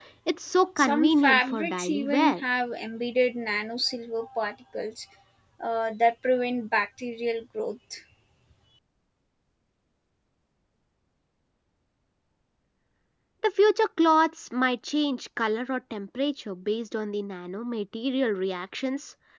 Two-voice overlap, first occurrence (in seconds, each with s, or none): 0.8 s